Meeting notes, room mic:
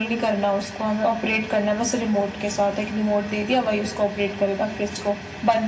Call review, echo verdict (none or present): present